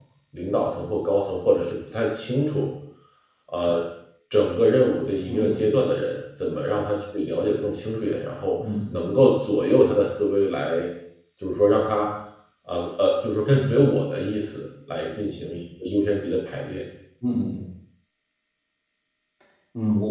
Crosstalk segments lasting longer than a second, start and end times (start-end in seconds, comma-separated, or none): none